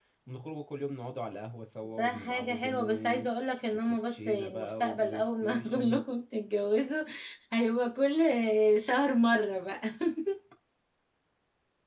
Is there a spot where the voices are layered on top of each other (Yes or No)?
Yes